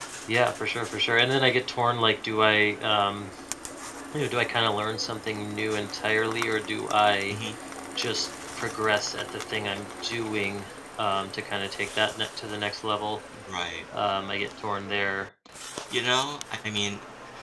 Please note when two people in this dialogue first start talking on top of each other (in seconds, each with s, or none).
none